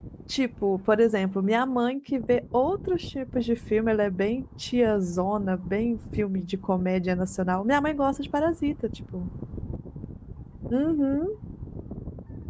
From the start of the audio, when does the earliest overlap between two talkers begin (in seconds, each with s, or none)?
none